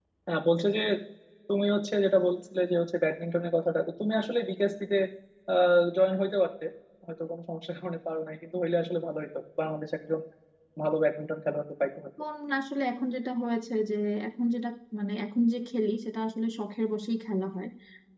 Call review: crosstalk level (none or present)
none